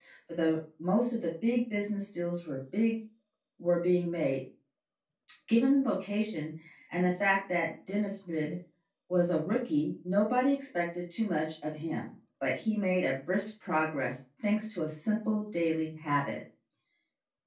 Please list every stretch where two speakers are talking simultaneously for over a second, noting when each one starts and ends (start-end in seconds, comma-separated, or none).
none